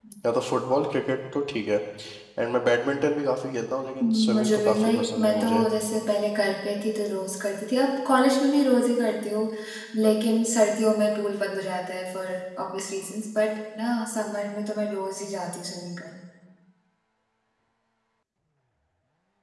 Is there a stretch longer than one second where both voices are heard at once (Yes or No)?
Yes